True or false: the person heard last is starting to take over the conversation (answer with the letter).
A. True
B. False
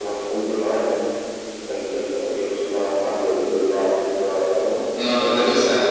A